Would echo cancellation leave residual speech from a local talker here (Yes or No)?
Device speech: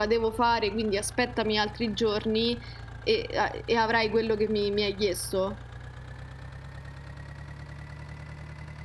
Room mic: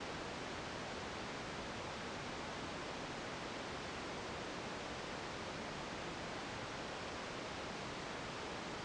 No